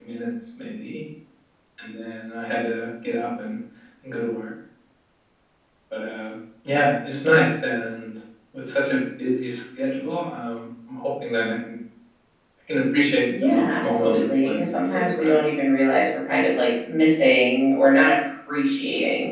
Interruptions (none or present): present